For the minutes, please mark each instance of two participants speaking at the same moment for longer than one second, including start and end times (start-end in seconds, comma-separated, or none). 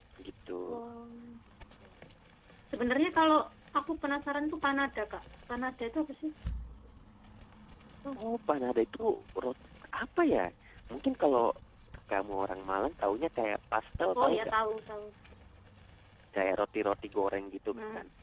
none